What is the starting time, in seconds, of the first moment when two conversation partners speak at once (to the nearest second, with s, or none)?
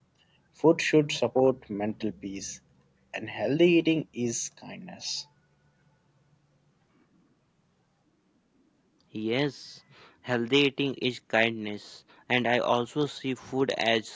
none